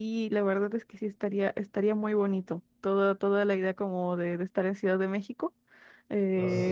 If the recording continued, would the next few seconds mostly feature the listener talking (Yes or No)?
No